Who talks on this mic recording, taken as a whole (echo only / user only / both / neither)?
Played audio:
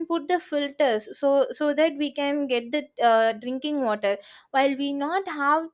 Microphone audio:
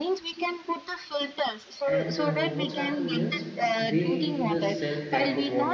both